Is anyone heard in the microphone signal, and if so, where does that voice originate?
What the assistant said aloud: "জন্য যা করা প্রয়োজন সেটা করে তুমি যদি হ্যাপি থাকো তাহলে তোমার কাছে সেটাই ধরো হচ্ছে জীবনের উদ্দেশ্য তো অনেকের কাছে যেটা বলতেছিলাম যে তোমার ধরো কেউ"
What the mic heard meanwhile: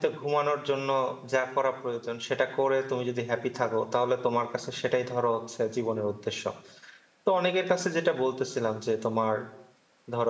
echo only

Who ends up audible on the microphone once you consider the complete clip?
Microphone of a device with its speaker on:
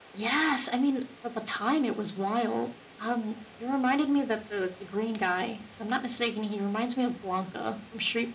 echo only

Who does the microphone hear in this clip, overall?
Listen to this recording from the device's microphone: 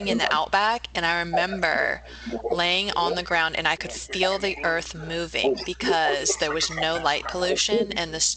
both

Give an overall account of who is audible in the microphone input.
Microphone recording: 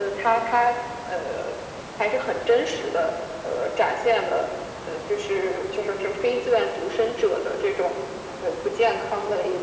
echo only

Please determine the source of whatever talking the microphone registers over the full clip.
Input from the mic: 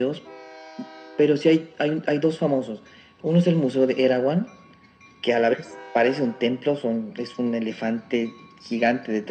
echo only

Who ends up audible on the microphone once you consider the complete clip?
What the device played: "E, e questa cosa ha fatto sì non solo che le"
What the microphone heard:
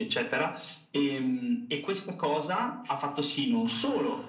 echo only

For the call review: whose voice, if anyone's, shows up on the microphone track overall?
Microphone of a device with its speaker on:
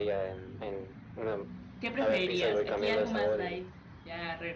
both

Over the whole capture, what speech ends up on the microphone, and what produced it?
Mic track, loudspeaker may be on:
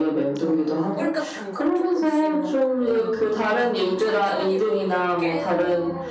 both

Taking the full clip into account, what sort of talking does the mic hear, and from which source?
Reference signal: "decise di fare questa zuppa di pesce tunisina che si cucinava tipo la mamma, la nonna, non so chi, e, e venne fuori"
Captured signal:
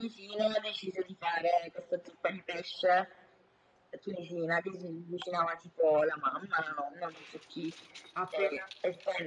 both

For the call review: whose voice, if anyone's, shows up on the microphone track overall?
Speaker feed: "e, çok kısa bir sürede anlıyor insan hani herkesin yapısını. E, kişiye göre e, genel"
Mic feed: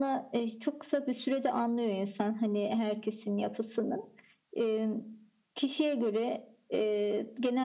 echo only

